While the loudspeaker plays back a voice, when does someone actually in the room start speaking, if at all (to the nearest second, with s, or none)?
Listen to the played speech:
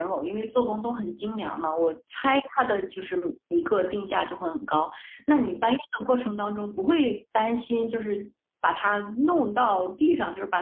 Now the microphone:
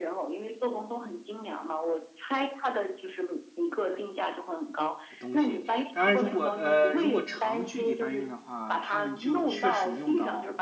5 s